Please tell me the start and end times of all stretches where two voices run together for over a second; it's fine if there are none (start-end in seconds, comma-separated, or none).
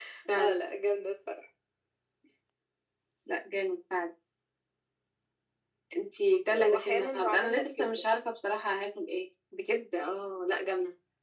6.5-8.0